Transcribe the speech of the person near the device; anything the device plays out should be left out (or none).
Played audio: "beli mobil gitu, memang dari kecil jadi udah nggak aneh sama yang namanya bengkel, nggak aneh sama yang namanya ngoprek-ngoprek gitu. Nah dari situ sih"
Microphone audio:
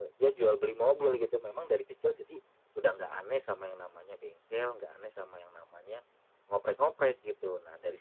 none